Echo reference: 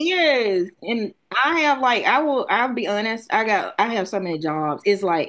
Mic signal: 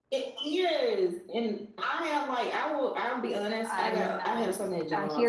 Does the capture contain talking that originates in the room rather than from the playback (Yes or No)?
Yes